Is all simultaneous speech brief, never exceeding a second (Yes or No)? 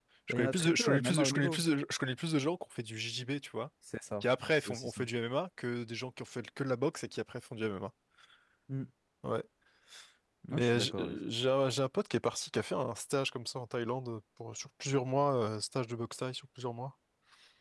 No